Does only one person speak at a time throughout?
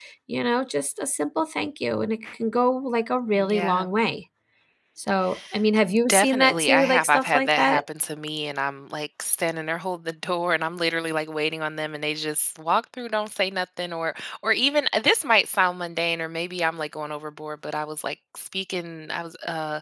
No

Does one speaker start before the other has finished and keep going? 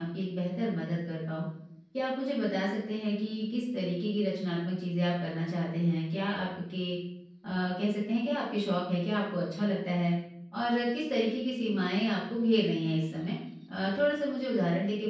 No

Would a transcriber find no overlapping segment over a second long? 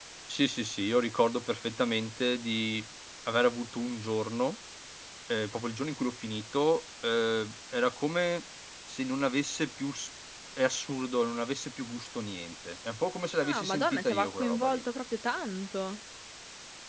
No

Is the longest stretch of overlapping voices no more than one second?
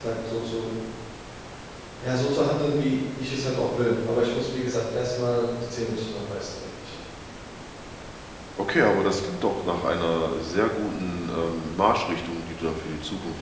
Yes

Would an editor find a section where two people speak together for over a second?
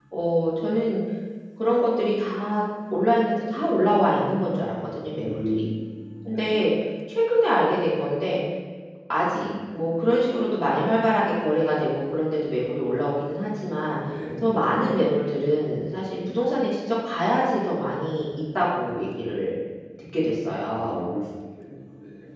No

